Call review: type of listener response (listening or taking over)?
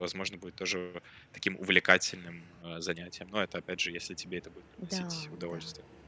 taking over